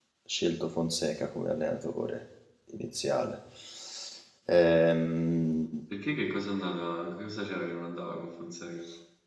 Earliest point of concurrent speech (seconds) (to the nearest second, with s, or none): none